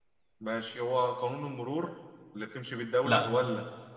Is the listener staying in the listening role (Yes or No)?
Yes